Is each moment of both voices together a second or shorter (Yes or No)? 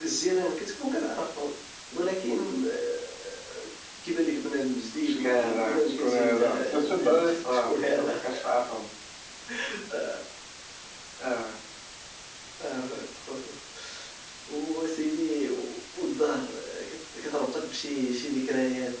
No